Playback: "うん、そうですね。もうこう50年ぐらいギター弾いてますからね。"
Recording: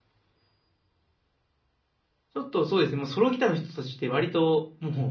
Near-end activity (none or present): present